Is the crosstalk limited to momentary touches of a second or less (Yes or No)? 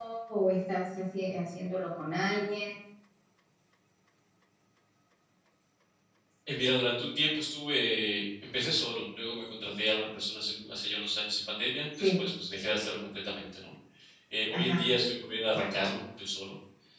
Yes